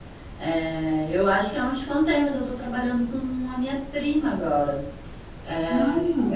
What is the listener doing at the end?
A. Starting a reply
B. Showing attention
B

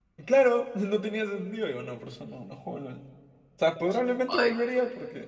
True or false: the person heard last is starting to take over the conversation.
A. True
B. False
B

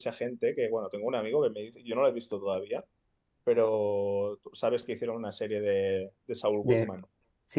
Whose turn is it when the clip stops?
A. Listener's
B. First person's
A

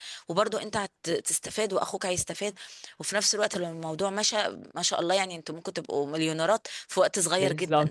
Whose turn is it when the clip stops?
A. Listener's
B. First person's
A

